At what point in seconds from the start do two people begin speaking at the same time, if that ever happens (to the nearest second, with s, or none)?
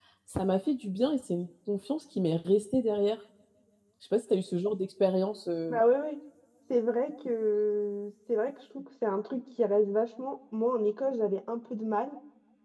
none